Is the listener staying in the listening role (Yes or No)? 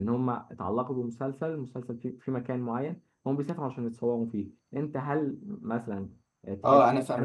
No